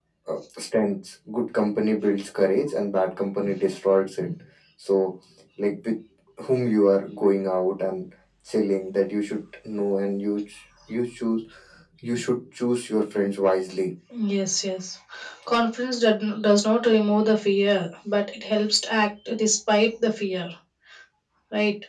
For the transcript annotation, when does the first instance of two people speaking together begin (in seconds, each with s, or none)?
none